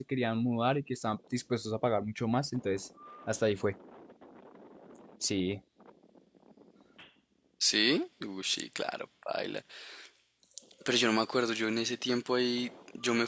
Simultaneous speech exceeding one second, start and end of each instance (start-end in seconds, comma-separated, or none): none